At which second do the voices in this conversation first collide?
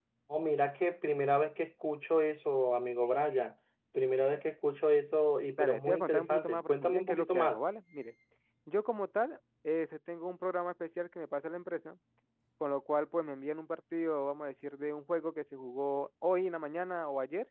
5.6 s

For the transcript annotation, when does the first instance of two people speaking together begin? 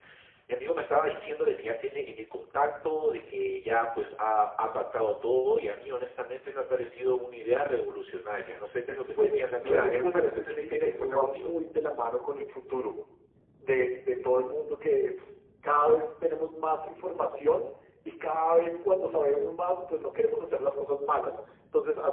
9.2 s

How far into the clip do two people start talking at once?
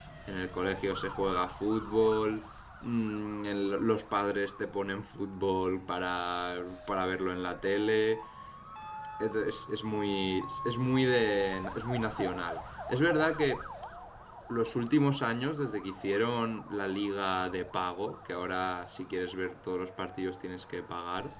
none

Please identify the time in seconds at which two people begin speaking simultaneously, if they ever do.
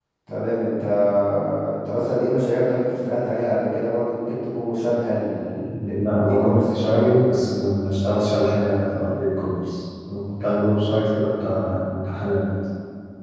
5.7 s

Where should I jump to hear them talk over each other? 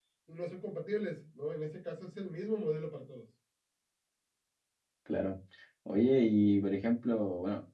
none

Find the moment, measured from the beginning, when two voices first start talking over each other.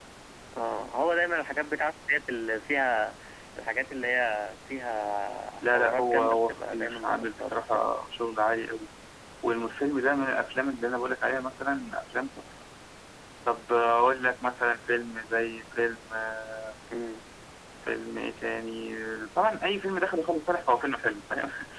5.6 s

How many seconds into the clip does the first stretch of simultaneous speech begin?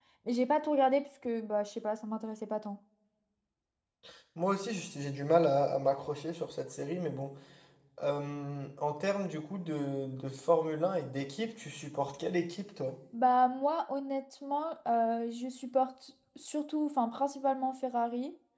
none

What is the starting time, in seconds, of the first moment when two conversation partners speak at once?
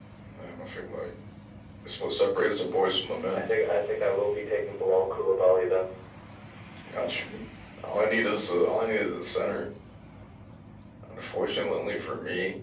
none

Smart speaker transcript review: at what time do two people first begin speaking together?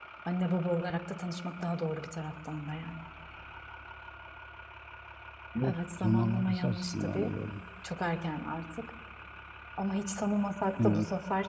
5.6 s

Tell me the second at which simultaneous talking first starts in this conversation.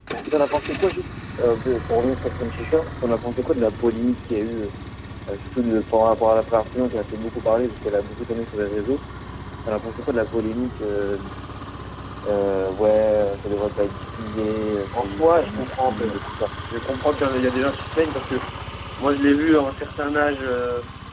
14.9 s

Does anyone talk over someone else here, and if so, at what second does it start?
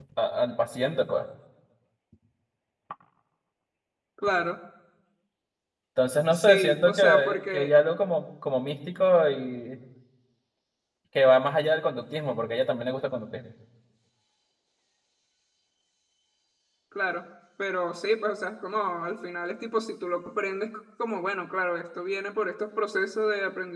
6.3 s

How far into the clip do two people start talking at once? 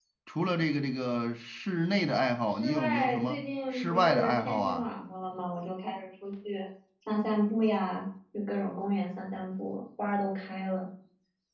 2.5 s

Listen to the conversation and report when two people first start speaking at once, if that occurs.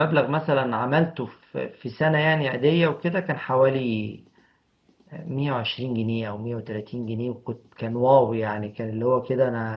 none

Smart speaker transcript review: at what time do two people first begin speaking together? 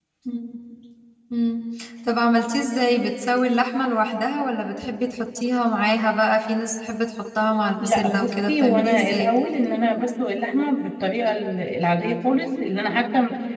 7.8 s

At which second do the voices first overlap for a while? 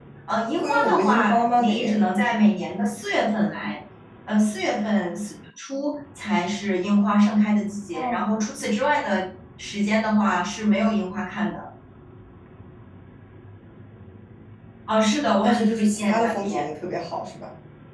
0.6 s

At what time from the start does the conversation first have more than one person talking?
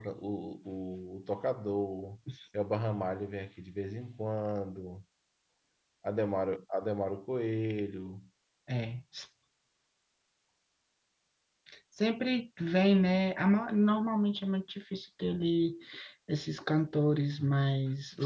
none

